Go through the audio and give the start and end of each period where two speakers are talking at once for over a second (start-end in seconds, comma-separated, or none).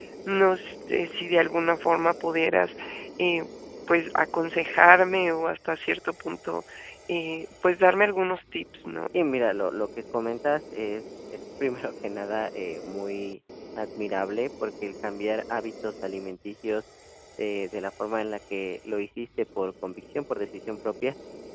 none